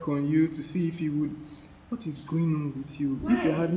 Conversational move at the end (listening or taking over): listening